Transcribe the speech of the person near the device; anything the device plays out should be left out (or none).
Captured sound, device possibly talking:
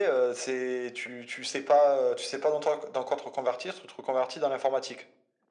none